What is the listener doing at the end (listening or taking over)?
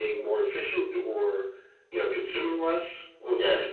taking over